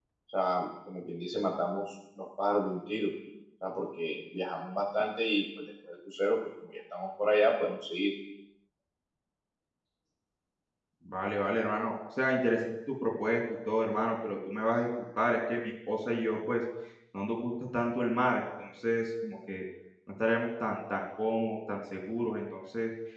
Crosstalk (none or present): none